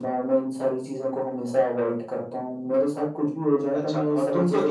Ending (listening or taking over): taking over